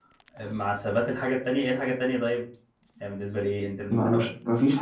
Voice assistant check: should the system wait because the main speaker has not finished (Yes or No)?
No